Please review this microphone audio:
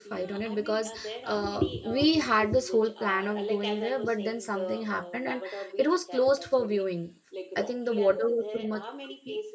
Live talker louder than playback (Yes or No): Yes